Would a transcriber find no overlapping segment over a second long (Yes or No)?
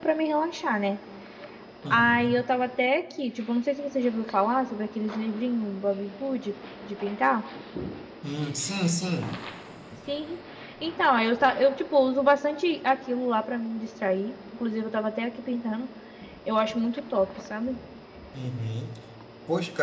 Yes